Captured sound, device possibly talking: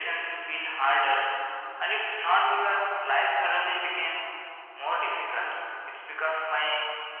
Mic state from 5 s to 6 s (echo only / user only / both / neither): echo only